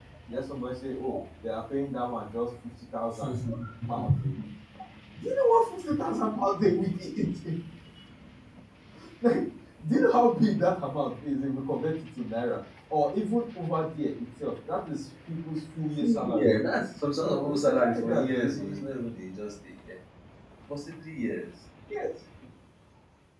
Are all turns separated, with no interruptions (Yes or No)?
No